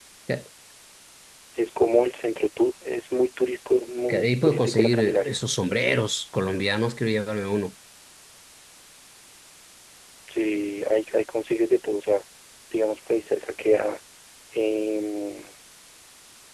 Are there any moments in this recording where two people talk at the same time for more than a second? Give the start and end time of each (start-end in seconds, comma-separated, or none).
4.1-5.4